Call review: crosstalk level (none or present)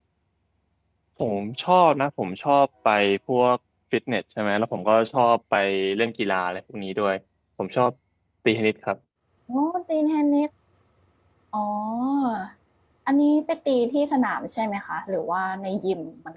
none